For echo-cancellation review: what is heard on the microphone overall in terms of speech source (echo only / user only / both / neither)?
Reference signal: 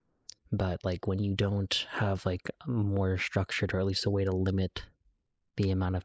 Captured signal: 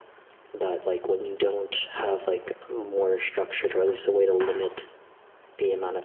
echo only